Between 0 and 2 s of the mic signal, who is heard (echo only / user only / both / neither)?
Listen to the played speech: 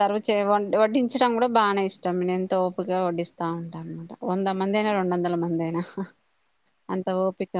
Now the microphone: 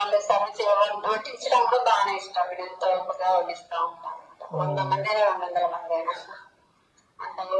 echo only